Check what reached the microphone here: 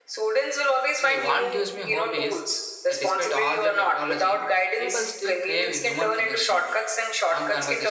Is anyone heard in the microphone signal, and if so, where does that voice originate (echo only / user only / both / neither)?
both